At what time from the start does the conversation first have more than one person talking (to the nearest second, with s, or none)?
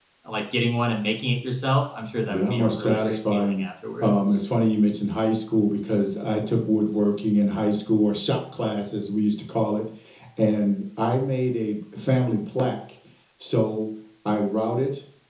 2 s